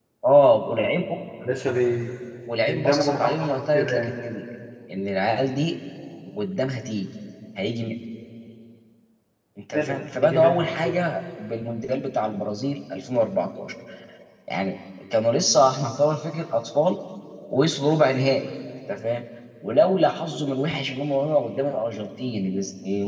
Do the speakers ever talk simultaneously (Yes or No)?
Yes